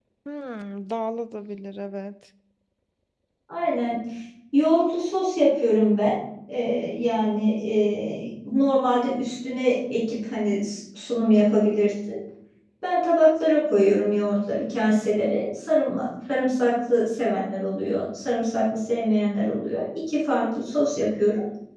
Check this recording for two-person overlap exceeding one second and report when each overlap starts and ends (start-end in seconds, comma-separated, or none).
none